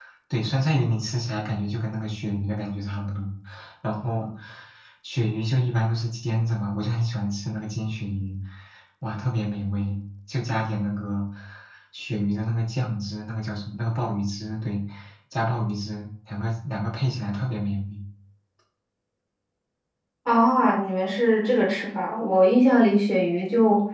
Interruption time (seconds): none

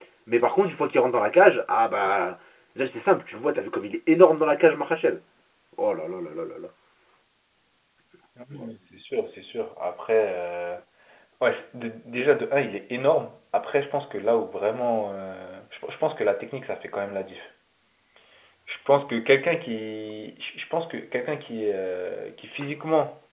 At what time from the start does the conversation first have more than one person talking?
none

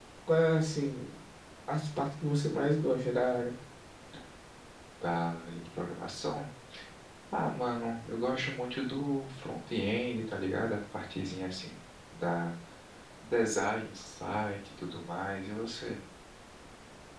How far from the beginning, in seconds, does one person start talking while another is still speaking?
none

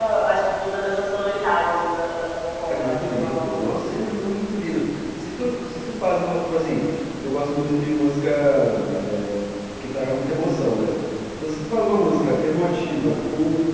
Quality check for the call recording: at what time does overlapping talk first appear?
3 s

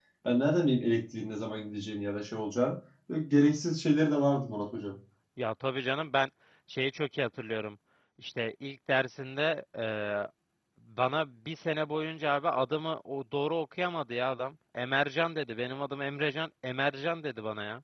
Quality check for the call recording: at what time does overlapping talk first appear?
none

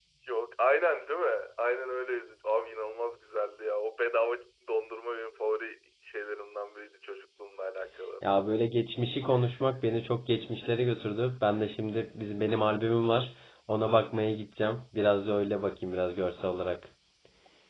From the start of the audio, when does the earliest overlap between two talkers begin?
none

